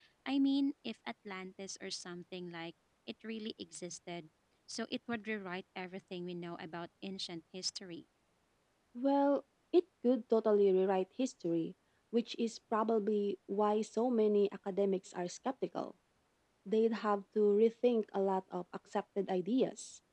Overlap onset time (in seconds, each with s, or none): none